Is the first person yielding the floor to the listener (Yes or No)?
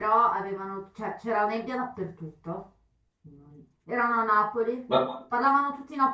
No